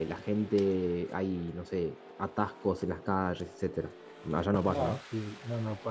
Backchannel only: No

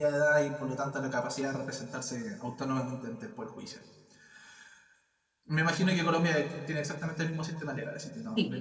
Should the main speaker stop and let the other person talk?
Yes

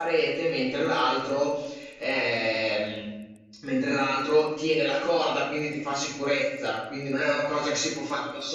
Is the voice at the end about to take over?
No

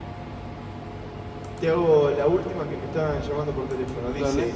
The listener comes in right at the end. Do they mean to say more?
No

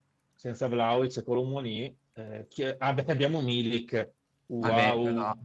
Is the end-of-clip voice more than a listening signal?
Yes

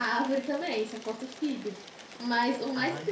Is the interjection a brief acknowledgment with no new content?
Yes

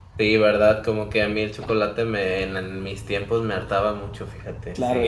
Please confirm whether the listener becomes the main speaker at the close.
Yes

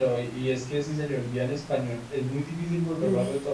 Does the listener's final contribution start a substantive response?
No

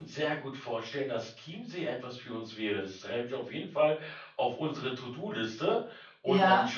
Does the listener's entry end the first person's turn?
No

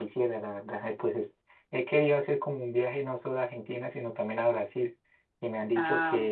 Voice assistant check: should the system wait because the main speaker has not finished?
Yes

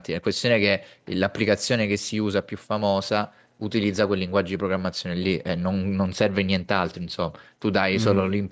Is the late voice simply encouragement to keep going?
Yes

